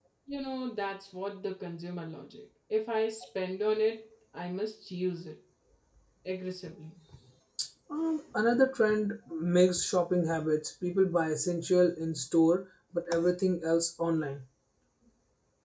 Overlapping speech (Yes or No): No